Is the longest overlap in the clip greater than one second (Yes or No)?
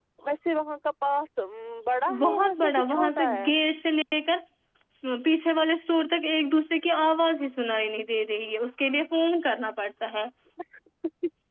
Yes